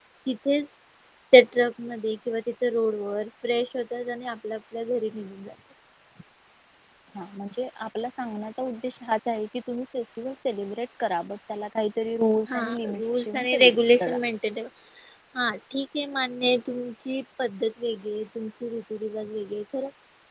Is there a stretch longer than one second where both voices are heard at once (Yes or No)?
No